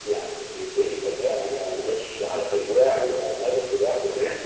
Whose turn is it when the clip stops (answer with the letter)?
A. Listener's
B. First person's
A